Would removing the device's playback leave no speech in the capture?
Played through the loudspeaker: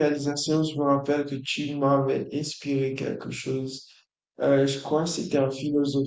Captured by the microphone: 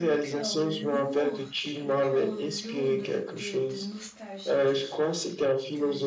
No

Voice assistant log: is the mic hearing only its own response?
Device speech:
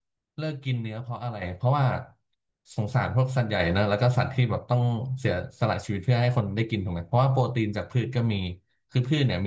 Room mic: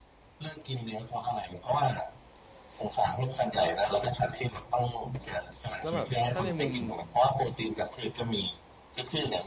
No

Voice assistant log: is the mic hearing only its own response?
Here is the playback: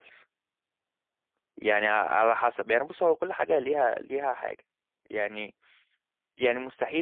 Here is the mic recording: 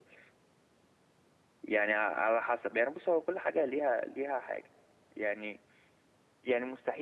Yes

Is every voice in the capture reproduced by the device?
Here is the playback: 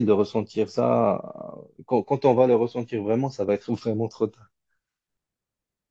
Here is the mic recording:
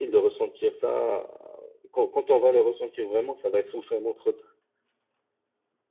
Yes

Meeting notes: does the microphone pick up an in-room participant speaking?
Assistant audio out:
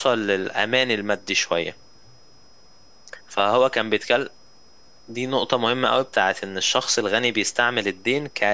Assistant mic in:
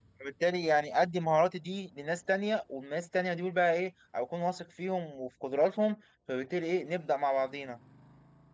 Yes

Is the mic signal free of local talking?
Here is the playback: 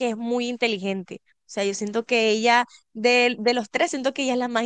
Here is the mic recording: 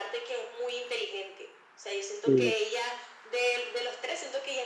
No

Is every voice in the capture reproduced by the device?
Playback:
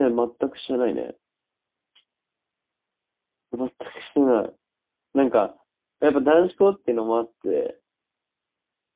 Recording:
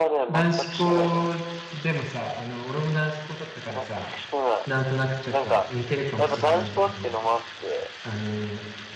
No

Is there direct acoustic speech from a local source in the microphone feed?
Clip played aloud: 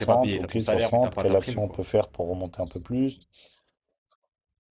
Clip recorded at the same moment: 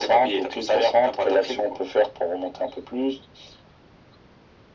No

